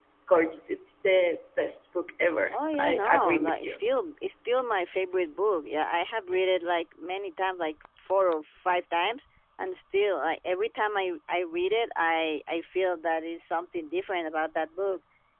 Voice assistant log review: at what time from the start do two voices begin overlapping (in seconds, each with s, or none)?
2.5 s